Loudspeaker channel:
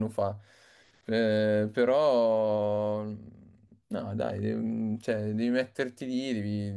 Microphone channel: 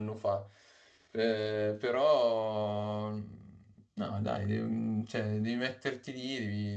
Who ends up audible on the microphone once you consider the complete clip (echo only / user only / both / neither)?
echo only